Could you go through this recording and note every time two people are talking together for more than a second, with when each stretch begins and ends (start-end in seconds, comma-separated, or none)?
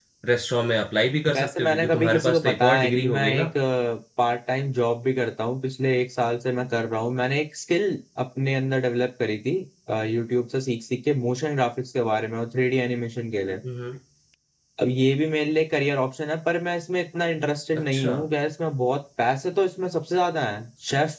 1.4-3.5